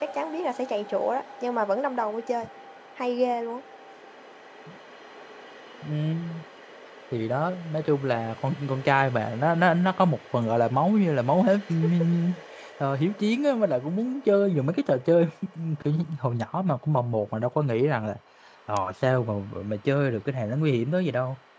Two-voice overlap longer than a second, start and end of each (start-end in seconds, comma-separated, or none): none